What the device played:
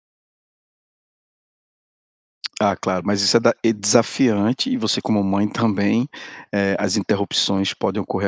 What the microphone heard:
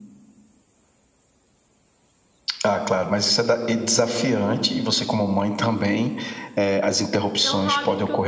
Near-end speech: present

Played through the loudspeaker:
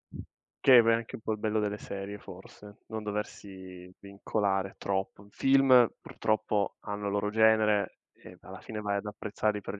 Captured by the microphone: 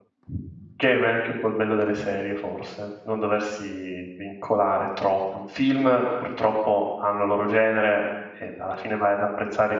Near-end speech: none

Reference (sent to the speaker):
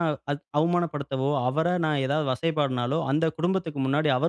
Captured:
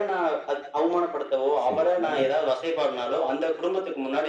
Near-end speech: present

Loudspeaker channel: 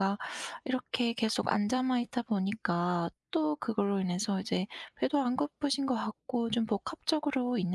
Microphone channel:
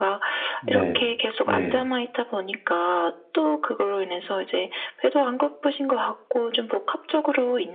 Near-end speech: present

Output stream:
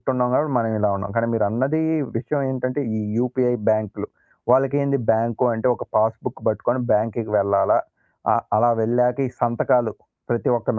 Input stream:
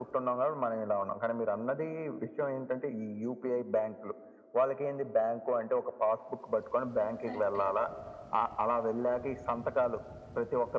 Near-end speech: present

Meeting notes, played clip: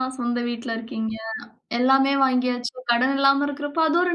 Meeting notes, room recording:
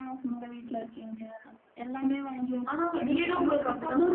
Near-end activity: present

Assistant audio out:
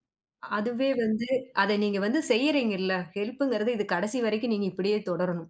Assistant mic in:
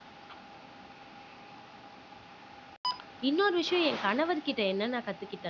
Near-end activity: present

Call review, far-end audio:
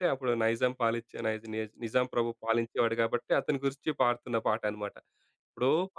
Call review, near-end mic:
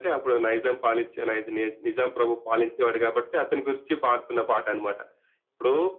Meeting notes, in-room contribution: none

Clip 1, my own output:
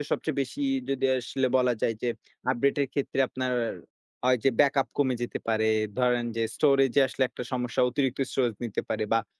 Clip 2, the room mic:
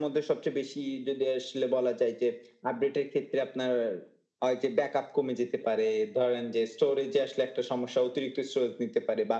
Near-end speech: none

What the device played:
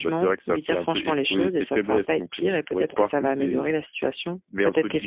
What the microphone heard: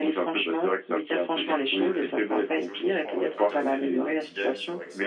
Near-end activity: present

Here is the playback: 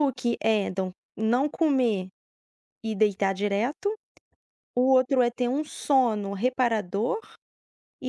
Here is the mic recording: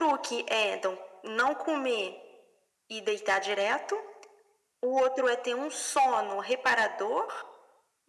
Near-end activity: none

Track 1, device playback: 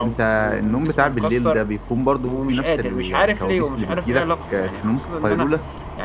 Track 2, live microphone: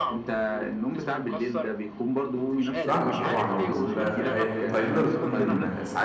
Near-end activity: present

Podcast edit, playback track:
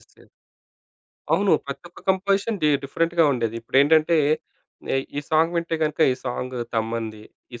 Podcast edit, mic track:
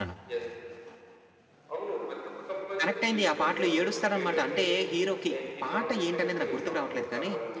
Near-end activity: present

